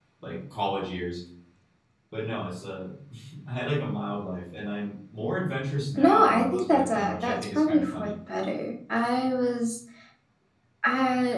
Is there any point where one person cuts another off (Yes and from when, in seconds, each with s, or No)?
Yes, from 6.0 s